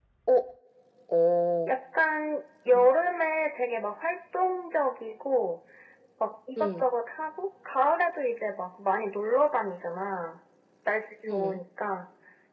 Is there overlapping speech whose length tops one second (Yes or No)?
No